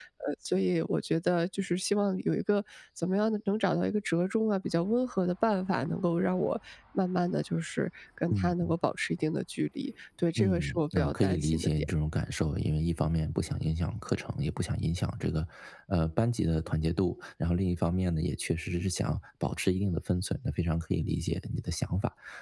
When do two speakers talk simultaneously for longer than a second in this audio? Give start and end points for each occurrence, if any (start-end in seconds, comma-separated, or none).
10.4-11.7